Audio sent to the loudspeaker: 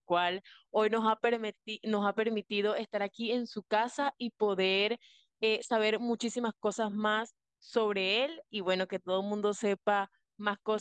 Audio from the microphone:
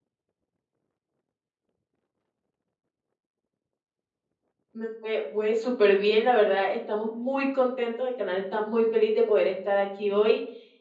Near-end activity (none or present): present